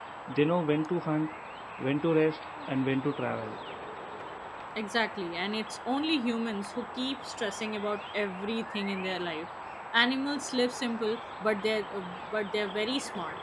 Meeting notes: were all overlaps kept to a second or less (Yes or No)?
Yes